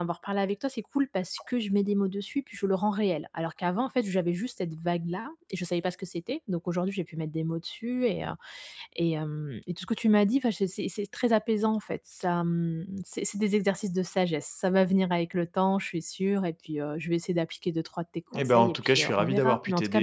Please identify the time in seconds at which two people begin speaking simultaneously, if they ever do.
18.3 s

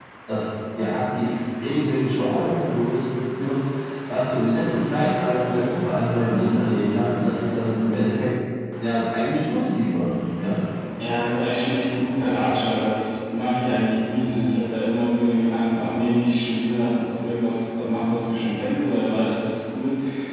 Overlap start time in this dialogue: none

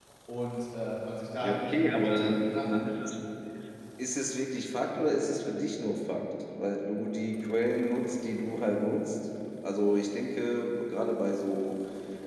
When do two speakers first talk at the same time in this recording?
1.4 s

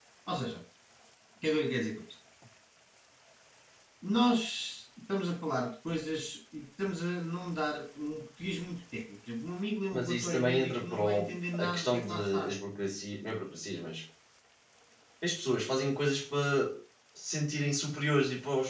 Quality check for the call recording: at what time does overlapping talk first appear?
9.9 s

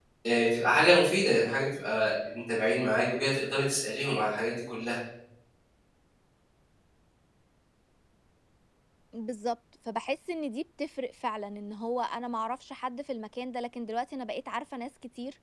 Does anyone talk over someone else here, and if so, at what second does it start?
none

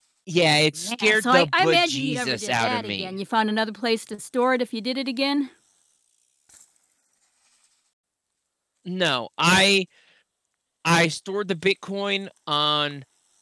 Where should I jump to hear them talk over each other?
0.8 s

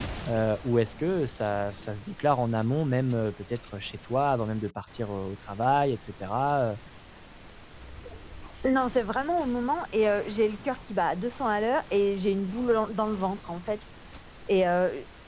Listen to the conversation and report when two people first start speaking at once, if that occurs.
none

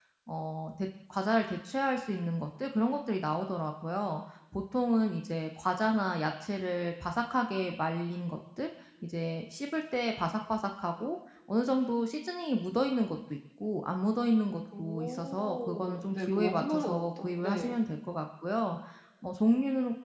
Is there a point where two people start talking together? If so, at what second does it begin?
14.6 s

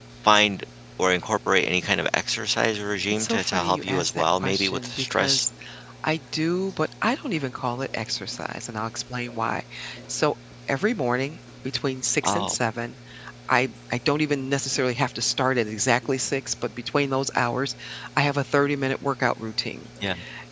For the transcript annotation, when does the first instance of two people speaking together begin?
3.1 s

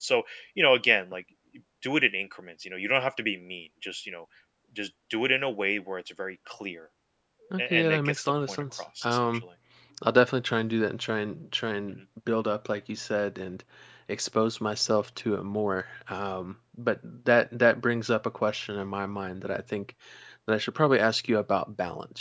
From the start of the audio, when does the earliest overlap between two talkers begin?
7.6 s

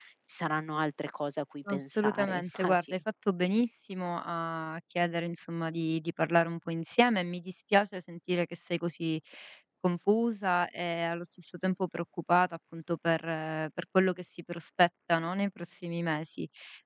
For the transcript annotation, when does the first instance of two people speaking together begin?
1.7 s

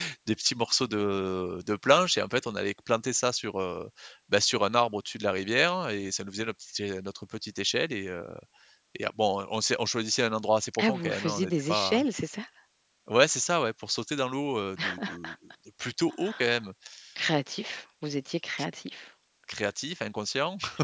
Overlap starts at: 10.8 s

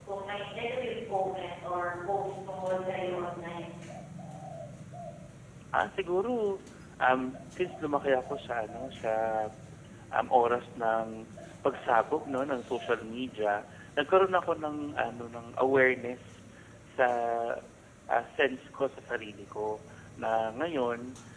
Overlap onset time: none

